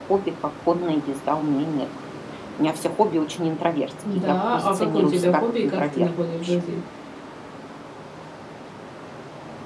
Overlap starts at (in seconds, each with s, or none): 4.0 s